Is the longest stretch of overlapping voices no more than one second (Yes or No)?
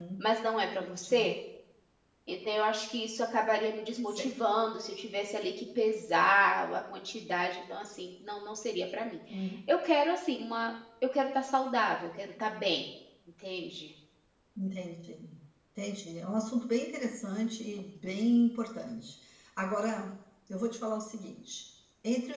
Yes